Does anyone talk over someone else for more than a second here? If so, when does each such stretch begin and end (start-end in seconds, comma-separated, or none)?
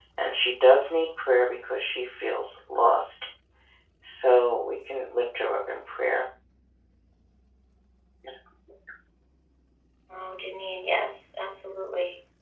none